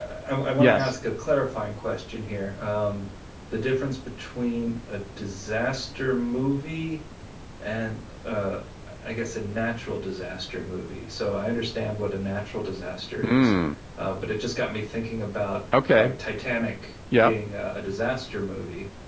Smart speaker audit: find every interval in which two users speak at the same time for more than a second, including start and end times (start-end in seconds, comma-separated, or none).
none